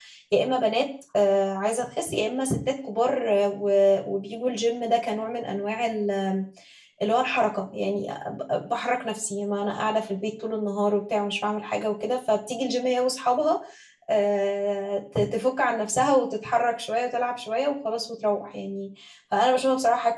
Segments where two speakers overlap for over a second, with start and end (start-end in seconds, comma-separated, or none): none